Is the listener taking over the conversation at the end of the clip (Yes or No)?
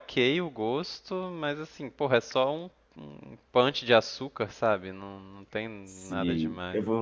Yes